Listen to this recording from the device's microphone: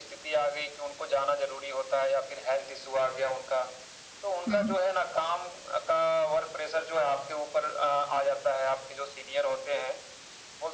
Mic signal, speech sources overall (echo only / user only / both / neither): both